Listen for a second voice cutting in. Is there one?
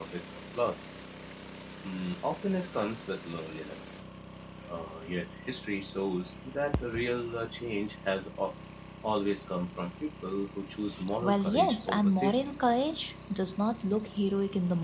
Yes, from 11.2 s

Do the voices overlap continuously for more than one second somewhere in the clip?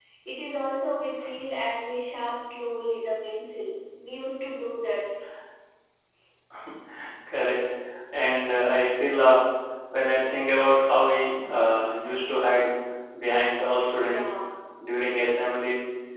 No

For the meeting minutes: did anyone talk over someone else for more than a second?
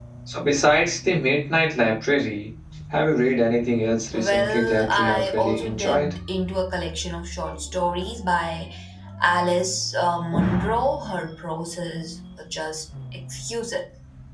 Yes, from 4.1 s

